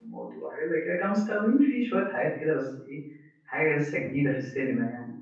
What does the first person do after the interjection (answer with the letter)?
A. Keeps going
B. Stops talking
A